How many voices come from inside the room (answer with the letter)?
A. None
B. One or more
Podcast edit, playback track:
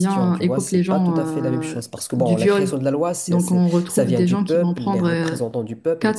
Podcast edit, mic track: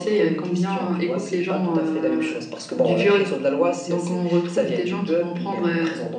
A